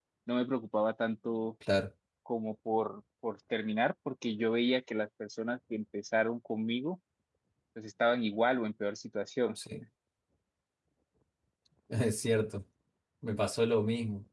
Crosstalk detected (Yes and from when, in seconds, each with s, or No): No